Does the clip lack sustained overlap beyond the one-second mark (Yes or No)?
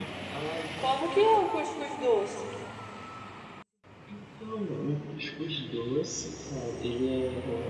Yes